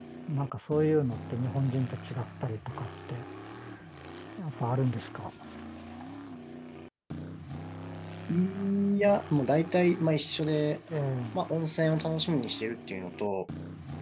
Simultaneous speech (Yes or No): No